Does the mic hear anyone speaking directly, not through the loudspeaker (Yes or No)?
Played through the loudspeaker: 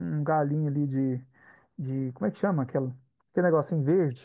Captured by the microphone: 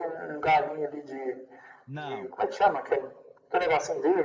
Yes